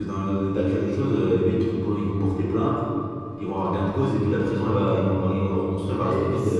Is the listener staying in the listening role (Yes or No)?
No